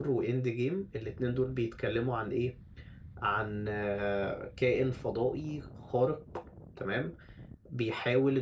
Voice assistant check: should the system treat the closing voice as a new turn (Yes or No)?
No